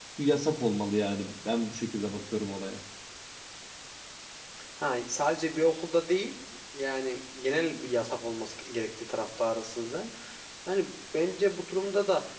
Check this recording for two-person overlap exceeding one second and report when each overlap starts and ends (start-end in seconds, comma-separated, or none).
none